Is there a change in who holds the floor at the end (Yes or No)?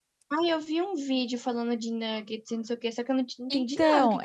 Yes